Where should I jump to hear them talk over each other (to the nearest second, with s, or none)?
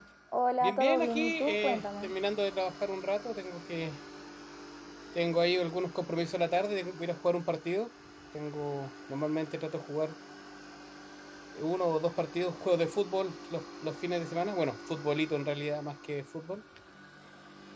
1 s